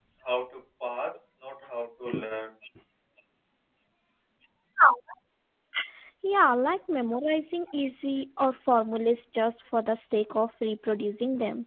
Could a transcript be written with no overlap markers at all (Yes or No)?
Yes